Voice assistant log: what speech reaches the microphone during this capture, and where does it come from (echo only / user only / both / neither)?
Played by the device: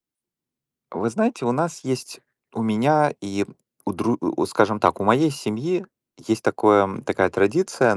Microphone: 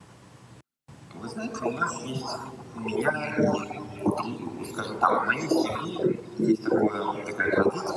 echo only